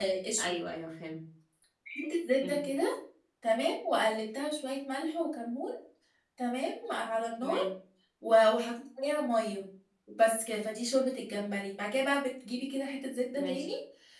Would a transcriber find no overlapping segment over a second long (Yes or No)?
Yes